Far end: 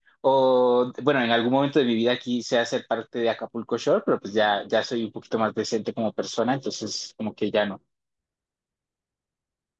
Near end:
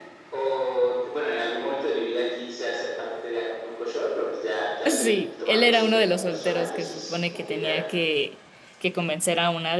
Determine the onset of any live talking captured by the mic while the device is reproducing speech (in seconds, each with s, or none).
4.8 s